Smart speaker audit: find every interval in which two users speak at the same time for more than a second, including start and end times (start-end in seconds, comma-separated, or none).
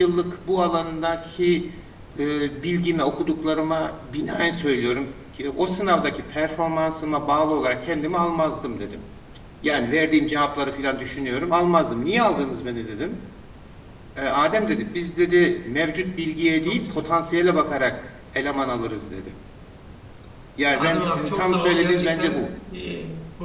20.7-22.4